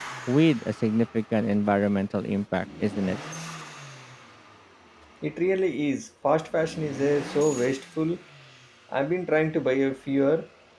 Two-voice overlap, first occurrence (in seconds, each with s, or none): none